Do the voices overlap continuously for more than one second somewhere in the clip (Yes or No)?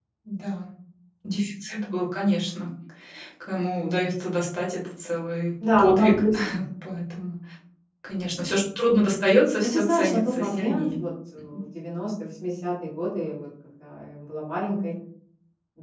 Yes